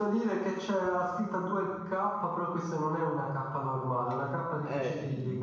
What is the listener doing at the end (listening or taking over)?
taking over